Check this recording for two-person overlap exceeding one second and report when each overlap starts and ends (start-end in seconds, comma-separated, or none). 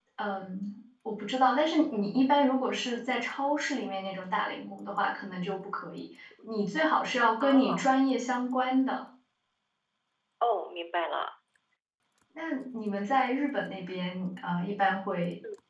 none